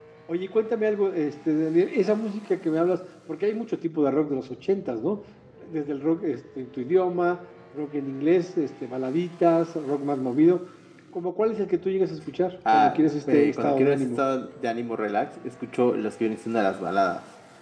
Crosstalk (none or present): present